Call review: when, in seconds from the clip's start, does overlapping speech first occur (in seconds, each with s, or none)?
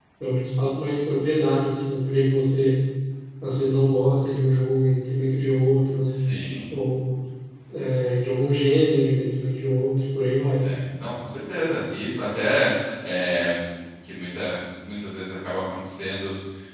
none